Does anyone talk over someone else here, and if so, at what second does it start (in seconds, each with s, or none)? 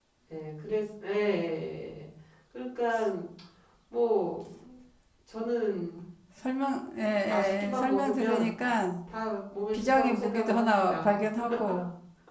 7.2 s